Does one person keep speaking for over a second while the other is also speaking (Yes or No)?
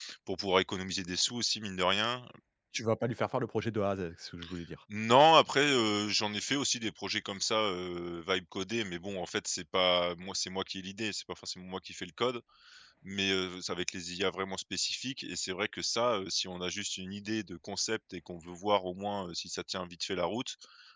No